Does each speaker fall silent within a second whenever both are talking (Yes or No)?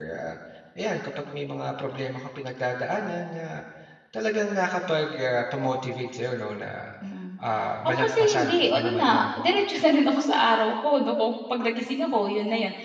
No